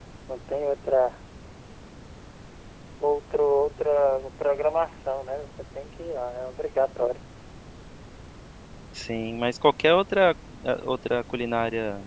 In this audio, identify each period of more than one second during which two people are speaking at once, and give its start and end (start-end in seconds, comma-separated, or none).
none